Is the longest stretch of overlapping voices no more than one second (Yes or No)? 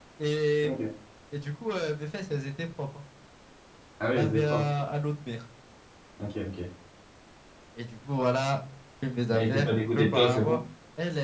No